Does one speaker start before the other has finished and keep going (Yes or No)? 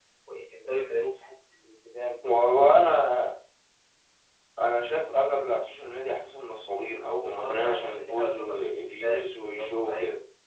Yes